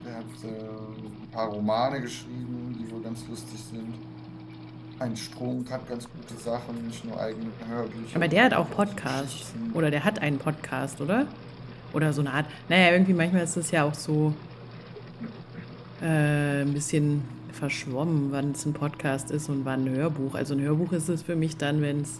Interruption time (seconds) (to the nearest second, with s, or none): 8 s